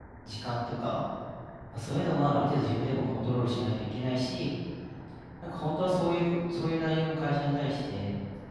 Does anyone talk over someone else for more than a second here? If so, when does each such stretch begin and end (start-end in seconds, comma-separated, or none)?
none